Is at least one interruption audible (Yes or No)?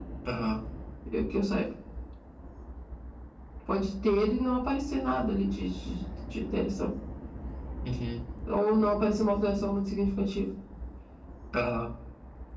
No